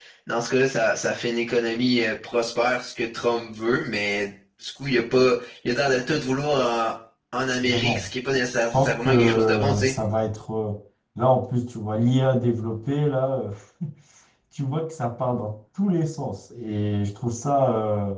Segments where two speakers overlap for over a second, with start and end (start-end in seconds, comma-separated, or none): 8.7-9.9